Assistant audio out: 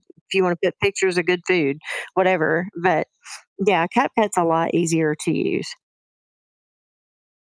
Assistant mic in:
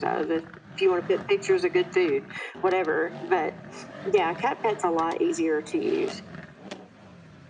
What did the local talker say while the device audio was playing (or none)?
none